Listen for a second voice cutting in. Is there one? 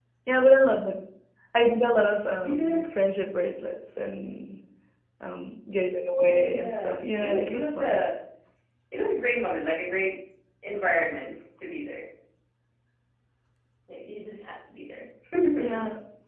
Yes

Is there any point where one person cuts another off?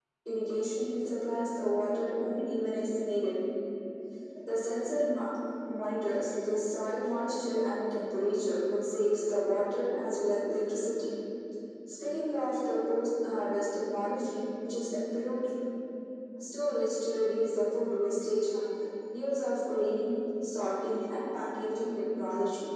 No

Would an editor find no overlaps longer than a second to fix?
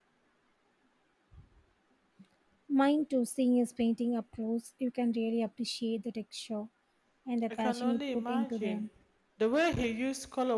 No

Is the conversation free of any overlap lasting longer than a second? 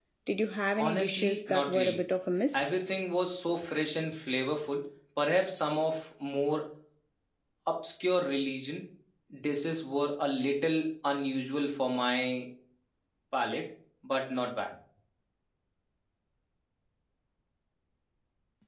No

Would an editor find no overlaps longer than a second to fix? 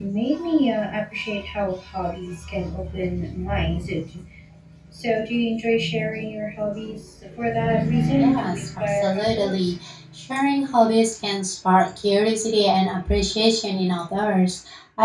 No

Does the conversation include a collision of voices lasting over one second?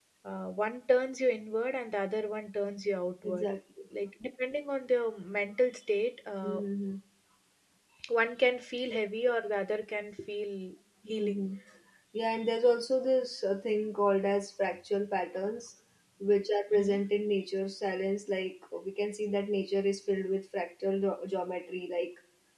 No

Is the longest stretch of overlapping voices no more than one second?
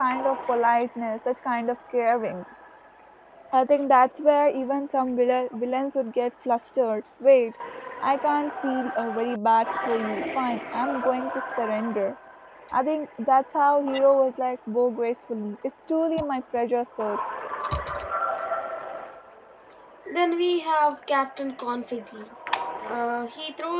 Yes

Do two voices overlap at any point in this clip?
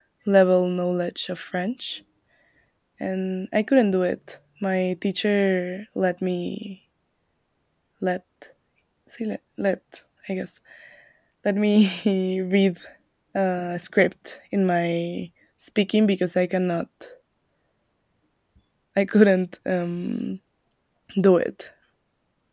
No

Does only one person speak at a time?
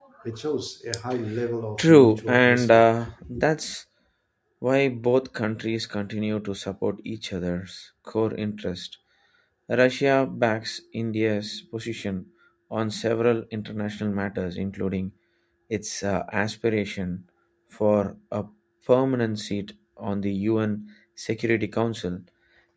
No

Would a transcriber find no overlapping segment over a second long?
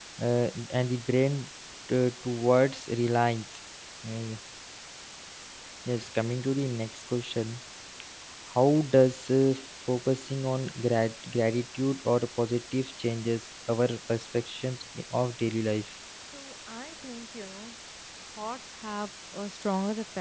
Yes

